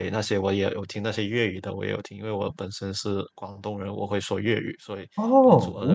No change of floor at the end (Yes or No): No